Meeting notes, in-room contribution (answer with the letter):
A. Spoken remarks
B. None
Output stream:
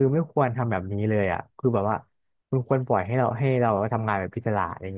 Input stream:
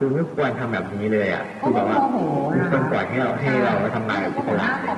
A